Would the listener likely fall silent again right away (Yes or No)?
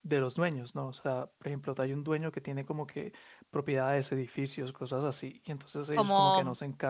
No